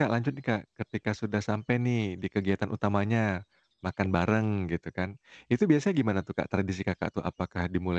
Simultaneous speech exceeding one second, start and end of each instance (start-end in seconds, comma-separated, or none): none